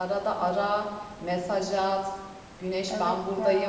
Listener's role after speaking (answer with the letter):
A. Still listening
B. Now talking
A